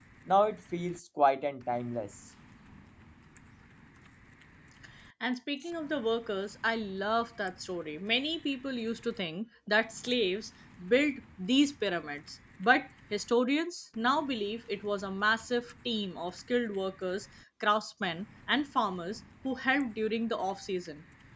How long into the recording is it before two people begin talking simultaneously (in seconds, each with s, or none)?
none